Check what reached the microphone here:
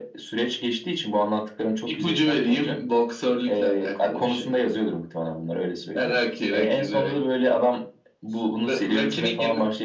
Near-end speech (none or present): none